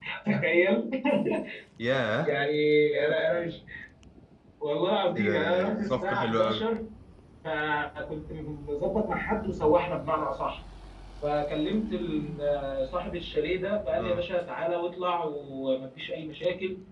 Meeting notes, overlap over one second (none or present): present